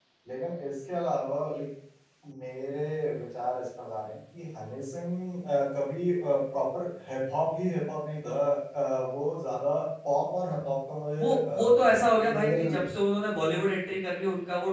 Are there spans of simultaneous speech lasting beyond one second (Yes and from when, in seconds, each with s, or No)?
Yes, from 11.2 s